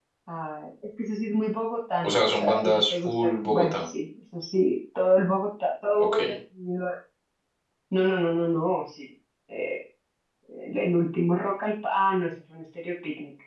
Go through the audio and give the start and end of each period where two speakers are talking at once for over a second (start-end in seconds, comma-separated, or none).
2.0-3.8